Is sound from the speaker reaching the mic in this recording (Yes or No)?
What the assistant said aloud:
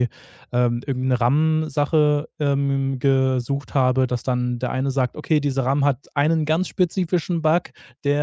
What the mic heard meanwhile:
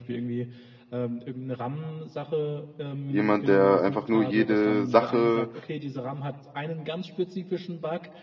Yes